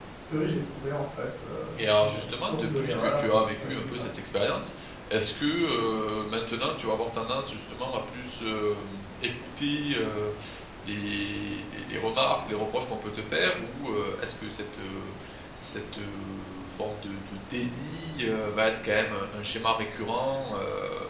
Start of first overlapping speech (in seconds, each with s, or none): 1.8 s